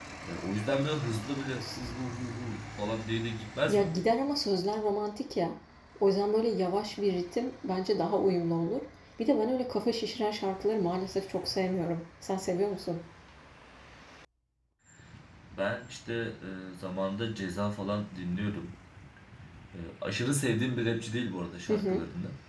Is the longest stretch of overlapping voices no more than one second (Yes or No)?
Yes